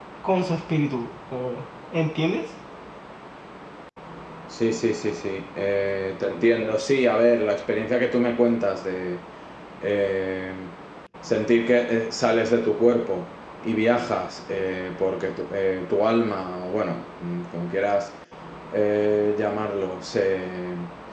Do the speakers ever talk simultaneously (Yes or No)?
No